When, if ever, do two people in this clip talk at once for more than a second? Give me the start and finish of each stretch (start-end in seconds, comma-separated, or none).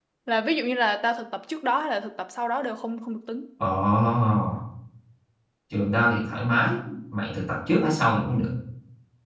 none